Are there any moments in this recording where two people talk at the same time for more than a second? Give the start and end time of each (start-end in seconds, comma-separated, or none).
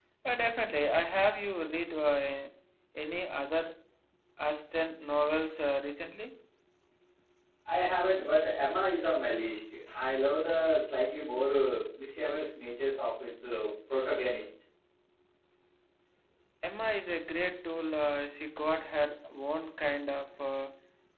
none